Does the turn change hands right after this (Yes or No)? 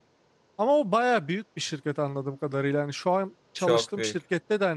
No